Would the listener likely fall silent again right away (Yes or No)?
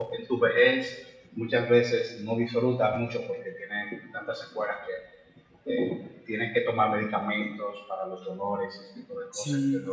No